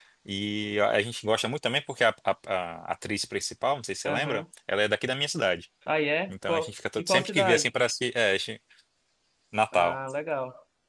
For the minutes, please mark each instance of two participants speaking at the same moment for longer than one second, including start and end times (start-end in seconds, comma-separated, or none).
6.3-7.7